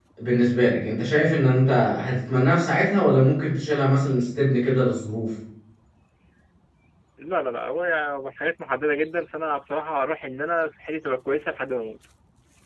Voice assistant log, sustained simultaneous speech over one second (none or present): none